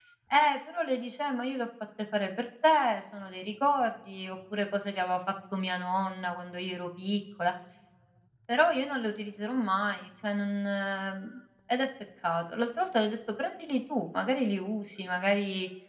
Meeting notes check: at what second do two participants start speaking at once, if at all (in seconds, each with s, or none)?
none